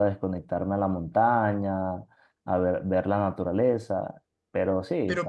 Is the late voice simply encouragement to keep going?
No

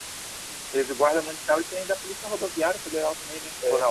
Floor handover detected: Yes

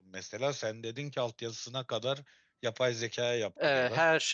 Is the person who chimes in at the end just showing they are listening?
No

